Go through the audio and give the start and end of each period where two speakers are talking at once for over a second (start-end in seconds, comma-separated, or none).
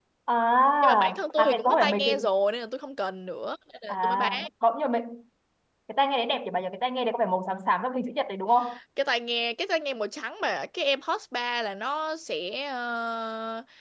0.8-2.2